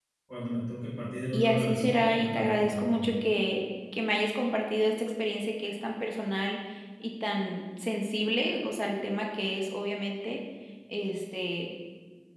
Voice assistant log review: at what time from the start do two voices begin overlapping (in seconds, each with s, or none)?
1.3 s